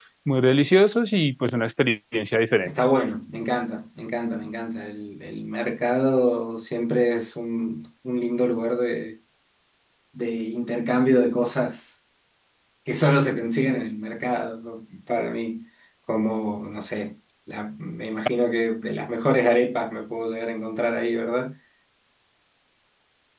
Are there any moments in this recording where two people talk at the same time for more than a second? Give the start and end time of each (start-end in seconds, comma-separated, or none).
none